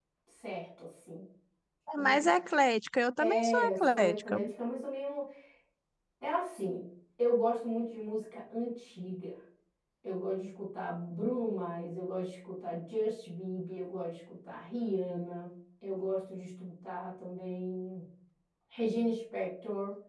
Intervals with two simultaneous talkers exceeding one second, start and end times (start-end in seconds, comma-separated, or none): 3.2-4.4